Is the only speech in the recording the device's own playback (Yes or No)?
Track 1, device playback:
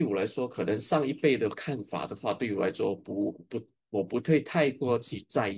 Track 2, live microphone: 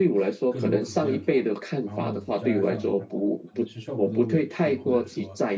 No